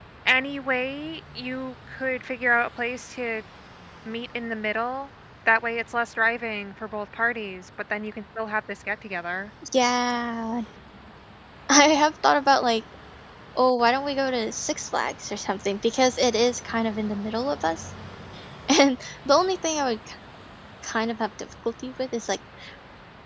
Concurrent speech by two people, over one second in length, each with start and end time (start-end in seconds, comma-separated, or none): none